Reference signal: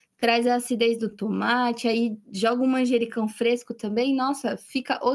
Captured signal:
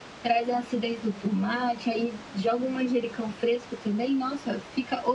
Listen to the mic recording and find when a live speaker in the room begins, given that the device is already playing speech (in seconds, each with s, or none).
none